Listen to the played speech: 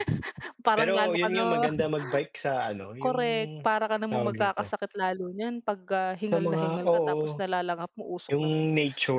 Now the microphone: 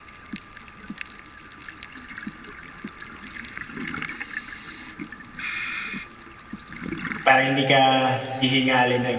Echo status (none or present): none